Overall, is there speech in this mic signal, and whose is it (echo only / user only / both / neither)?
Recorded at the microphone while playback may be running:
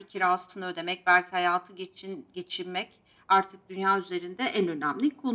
echo only